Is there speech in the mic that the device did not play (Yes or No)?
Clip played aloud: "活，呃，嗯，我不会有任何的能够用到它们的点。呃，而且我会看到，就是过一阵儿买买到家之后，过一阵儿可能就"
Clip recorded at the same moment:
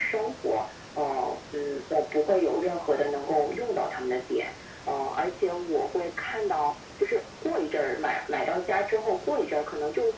No